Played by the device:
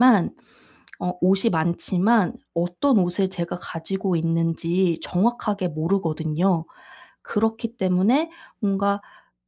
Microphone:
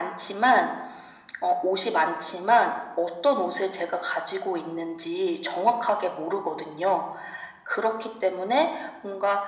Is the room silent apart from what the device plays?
Yes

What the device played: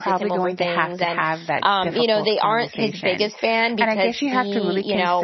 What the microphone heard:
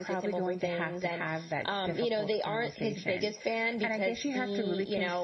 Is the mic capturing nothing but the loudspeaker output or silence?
Yes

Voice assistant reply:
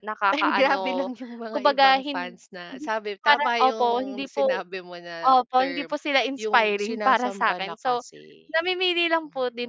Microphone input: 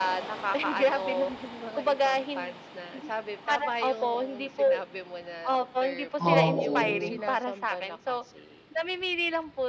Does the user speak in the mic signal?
Yes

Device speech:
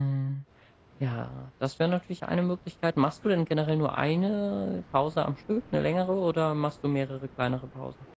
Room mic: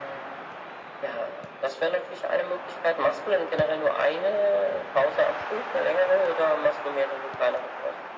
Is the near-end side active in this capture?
No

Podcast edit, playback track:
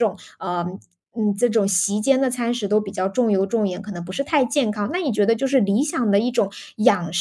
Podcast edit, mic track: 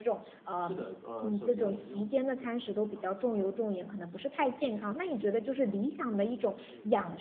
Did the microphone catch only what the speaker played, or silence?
No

